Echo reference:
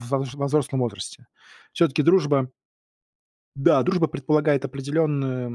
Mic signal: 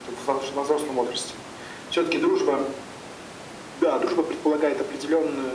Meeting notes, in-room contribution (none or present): none